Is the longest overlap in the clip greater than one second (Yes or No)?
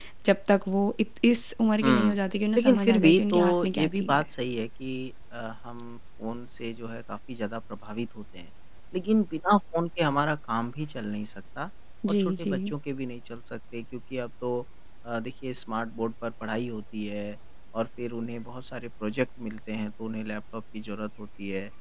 Yes